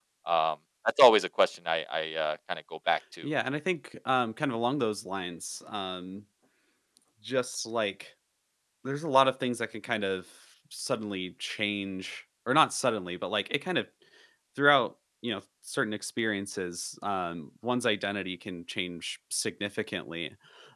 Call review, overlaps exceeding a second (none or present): none